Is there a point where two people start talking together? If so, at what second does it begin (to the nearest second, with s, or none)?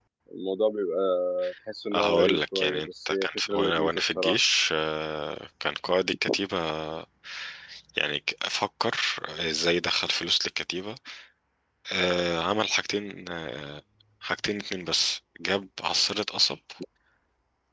2 s